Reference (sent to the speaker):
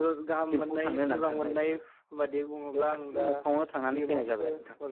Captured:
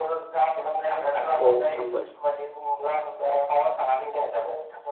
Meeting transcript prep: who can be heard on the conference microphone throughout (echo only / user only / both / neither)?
both